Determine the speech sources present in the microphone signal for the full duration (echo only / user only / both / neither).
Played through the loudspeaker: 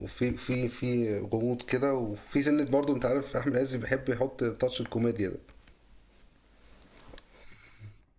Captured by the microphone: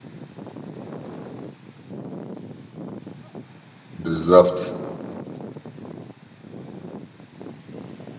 user only